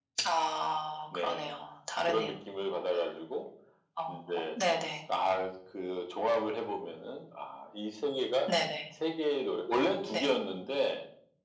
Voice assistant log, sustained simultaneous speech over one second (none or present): none